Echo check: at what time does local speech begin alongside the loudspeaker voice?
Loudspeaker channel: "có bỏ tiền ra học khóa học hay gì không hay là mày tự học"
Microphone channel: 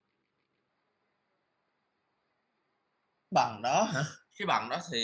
3.3 s

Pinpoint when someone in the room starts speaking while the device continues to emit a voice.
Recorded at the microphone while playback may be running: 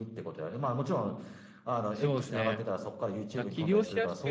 1.9 s

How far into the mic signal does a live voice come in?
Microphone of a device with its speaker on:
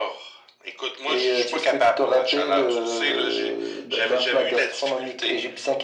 none

